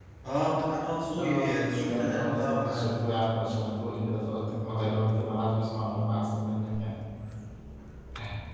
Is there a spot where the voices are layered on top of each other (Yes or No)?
Yes